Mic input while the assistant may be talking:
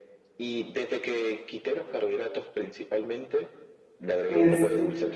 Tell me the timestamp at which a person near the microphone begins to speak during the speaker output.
4 s

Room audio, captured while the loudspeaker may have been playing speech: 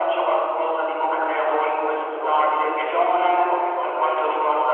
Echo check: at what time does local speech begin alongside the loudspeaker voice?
none

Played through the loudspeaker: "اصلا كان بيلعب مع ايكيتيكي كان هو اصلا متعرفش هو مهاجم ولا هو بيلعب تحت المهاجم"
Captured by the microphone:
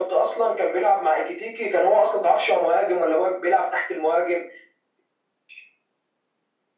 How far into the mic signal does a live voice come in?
none

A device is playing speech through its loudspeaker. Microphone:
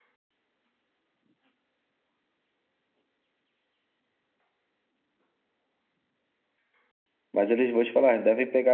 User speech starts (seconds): 7 s

